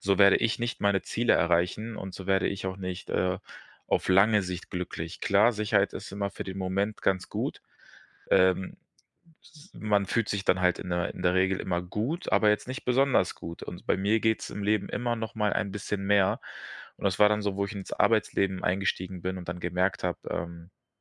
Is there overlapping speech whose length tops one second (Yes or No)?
No